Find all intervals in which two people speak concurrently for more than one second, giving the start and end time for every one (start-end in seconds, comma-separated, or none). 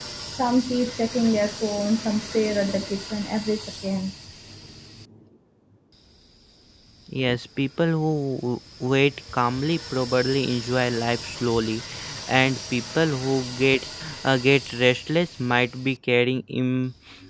none